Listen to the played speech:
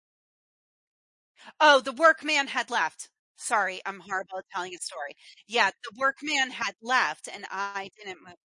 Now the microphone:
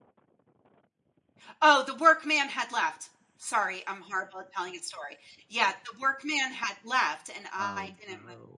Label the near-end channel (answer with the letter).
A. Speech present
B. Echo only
A